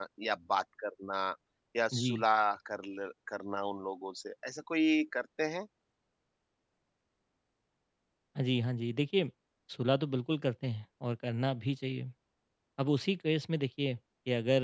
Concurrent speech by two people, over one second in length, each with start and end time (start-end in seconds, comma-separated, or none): none